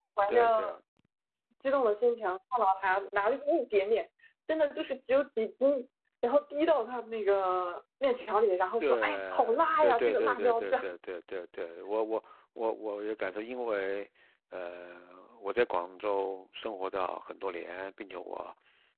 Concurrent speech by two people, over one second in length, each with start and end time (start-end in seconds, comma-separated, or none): 8.8-10.8